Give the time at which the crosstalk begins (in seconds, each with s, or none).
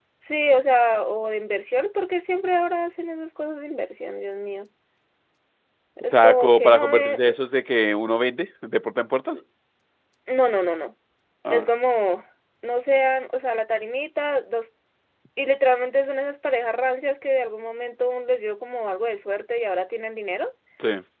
6.1 s